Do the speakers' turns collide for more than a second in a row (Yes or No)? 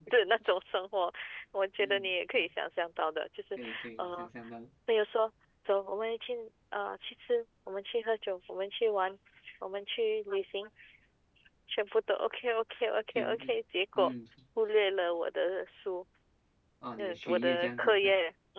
Yes